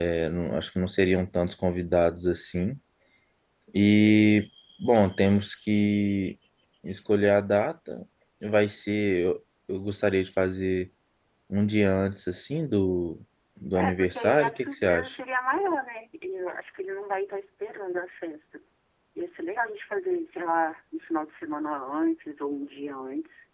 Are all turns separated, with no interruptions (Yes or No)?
No